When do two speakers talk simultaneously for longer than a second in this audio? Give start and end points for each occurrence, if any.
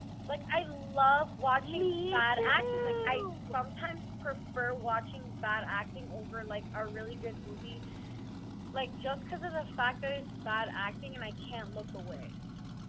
1.8-3.7

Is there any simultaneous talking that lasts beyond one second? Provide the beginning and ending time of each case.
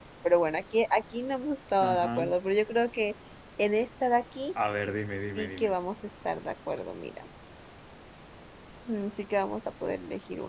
none

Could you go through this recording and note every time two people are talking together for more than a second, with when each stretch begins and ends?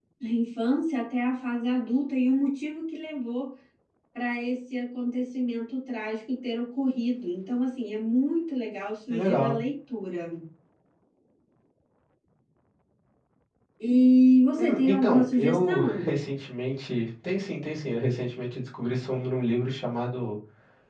14.6-16.1

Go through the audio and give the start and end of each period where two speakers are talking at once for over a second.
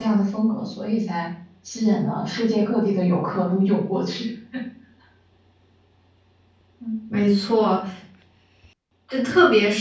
none

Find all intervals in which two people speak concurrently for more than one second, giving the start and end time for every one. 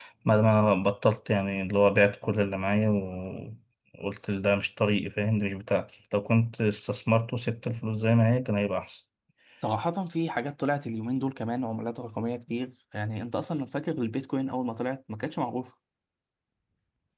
none

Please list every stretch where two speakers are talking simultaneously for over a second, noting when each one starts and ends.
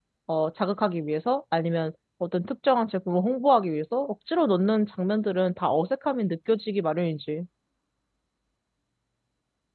none

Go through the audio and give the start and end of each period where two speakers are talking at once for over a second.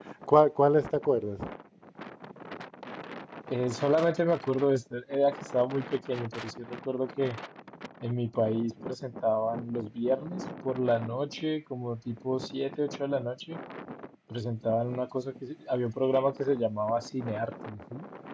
none

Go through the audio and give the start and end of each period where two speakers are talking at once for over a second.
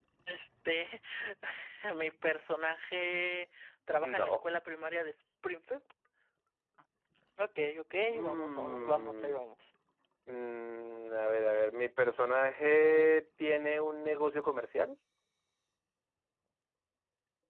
8.1-9.4

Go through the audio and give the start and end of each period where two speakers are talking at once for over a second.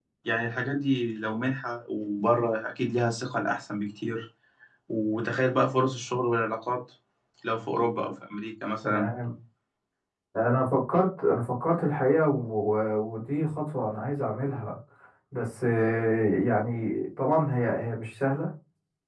none

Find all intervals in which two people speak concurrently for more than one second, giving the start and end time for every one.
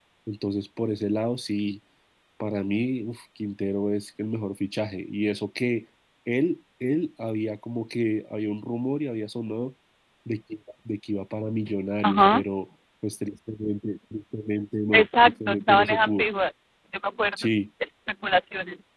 14.9-16.2

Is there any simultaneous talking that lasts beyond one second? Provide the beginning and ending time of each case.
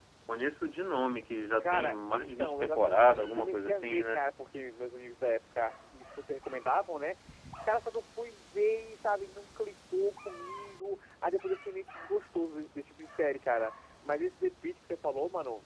1.1-4.2

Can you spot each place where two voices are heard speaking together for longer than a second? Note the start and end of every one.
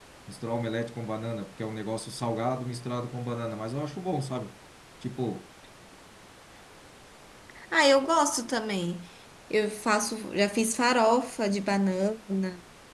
none

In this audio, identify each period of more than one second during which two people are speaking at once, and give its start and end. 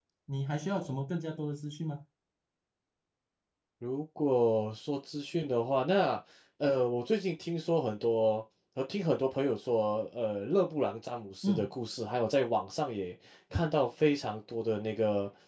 none

